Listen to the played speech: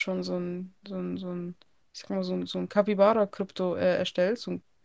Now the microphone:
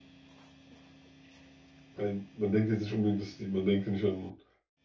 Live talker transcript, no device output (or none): ein, man denkt jetzt nicht unbedingt, dass die, man denkt ja nicht an